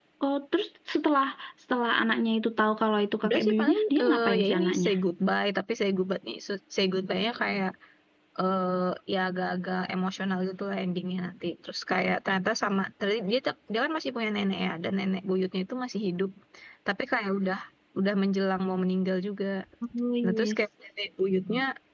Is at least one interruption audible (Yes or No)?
Yes